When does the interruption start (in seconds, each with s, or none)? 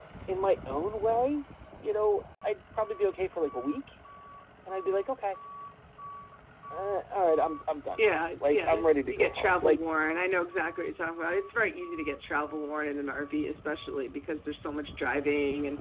8.0 s